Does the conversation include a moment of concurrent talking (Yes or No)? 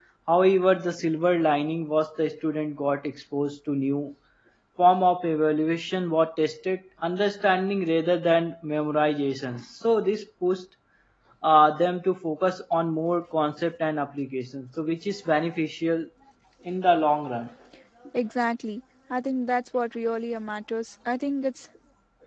No